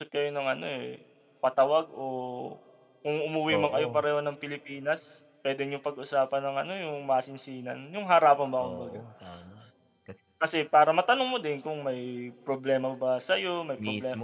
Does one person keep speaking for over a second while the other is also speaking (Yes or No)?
No